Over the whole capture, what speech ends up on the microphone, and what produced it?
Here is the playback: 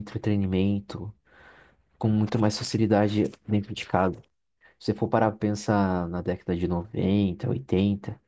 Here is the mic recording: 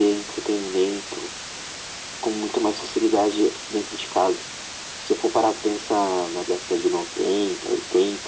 echo only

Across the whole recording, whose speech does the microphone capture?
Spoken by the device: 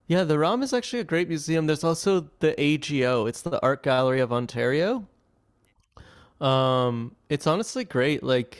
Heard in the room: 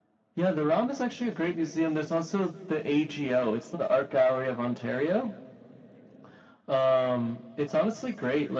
echo only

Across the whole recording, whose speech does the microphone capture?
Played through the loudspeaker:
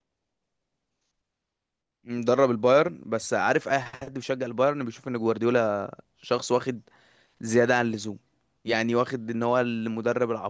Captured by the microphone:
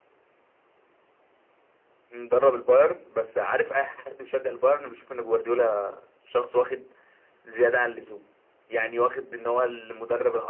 echo only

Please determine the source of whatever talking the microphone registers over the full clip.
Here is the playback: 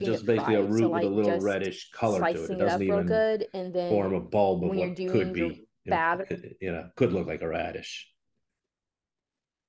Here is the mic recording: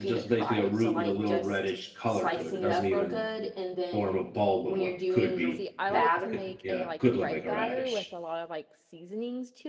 both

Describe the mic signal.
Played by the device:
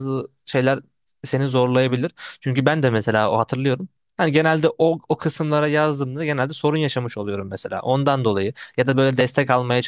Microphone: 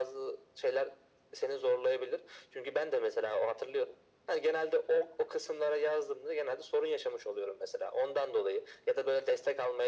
echo only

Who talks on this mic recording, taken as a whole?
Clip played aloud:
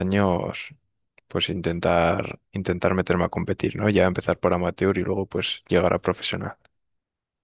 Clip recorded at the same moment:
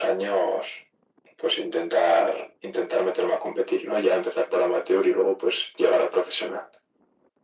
echo only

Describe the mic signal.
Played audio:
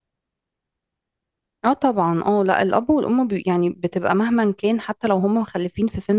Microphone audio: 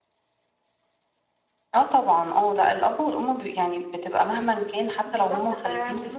both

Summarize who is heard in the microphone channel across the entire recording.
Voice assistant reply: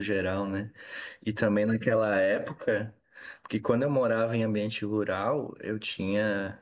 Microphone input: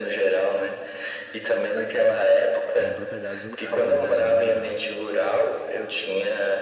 both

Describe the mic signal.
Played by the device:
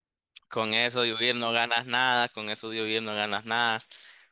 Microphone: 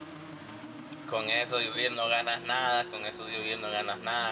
echo only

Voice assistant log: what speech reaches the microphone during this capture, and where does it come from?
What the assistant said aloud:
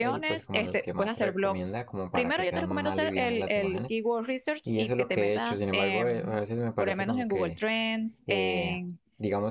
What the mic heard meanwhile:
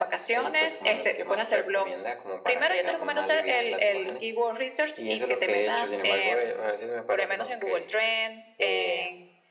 echo only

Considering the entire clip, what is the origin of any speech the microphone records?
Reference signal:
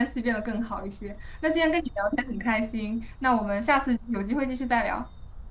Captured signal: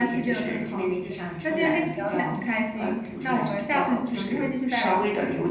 both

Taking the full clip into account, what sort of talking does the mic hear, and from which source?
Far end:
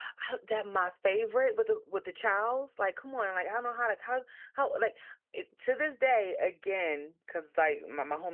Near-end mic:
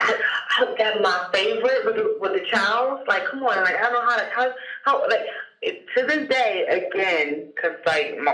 echo only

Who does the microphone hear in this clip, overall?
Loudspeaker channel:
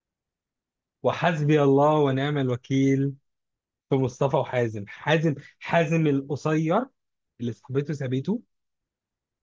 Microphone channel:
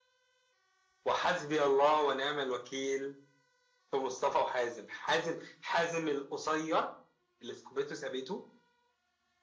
echo only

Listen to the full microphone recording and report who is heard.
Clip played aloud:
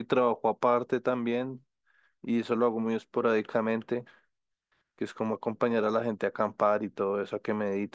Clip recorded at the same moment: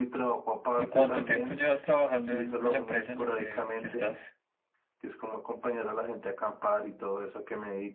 both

